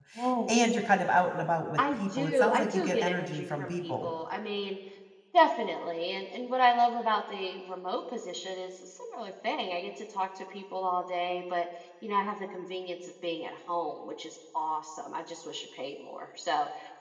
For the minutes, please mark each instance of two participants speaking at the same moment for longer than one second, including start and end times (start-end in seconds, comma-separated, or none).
1.8-4.1